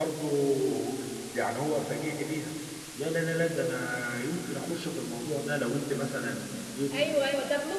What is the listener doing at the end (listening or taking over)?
taking over